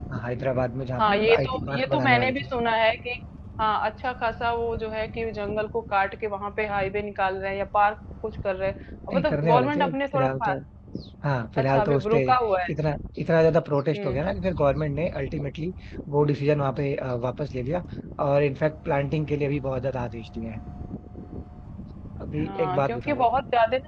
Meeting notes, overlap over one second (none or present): present